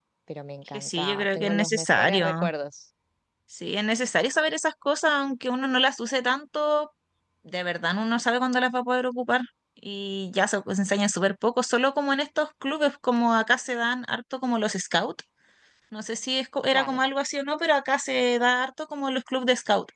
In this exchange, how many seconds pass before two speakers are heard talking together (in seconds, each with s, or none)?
0.7 s